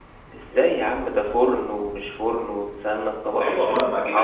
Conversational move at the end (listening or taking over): taking over